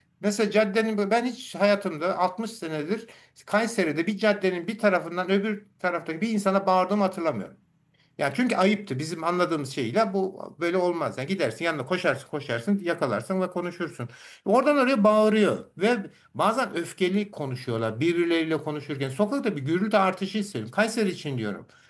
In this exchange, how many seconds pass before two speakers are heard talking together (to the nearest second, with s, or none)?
none